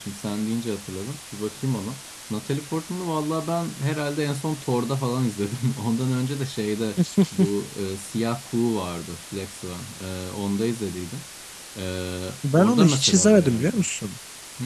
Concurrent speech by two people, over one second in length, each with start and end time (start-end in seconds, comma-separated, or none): 12.6-13.8